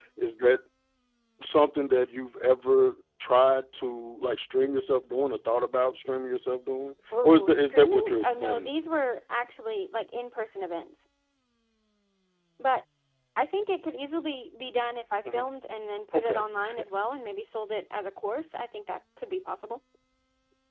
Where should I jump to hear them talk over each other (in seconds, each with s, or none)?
7.2 s